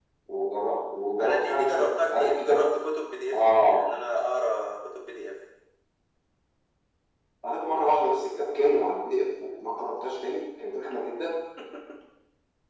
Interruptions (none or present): present